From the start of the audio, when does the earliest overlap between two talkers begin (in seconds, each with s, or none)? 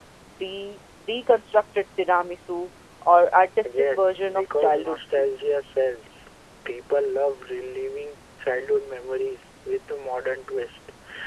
3.6 s